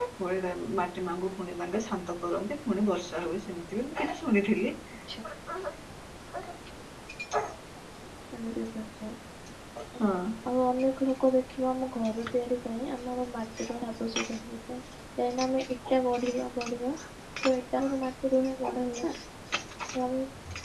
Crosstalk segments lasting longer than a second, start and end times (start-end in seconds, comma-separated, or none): none